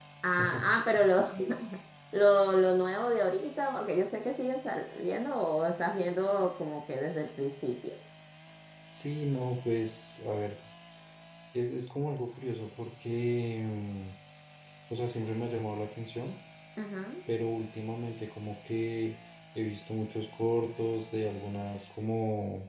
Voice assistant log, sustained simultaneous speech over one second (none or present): none